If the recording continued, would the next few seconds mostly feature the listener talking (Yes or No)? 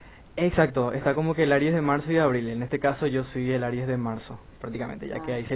No